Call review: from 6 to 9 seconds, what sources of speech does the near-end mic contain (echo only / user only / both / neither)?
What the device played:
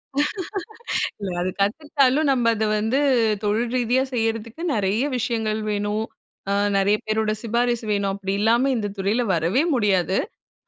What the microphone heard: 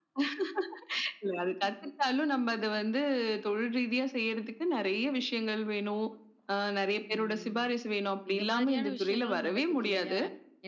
both